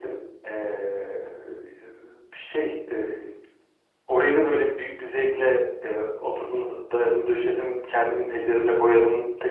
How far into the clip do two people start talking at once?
none

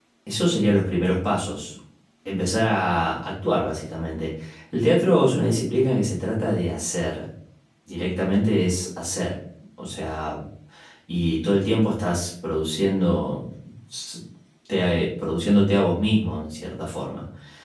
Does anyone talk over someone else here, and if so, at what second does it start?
none

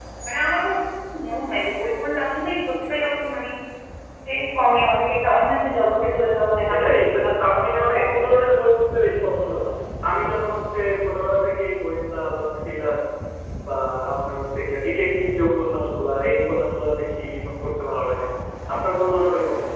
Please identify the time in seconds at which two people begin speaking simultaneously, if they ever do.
7 s

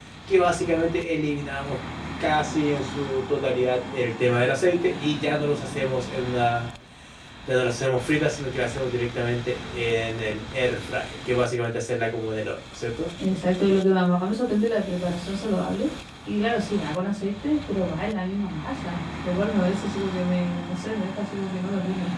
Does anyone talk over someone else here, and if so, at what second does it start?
none

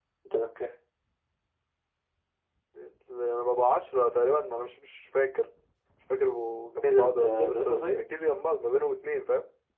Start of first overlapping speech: 7 s

